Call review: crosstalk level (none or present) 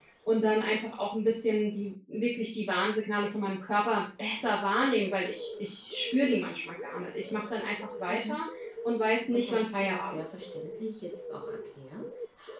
present